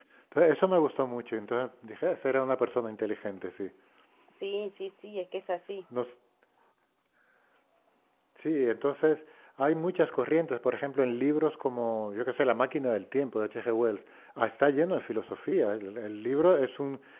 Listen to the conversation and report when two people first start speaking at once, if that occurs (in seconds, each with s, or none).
none